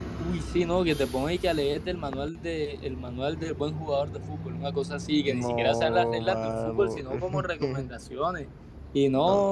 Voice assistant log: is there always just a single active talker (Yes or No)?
No